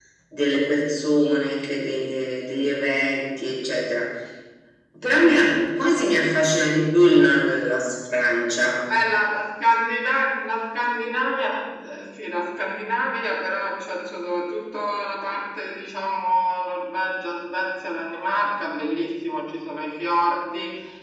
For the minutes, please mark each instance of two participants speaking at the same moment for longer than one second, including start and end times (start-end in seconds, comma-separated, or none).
none